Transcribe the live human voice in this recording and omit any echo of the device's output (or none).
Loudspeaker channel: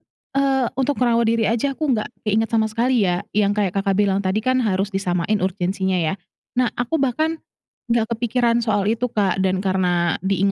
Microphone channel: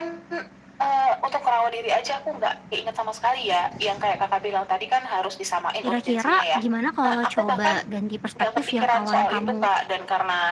kira-kira gimana kalau coba ganti perspektif yang awalnya kamu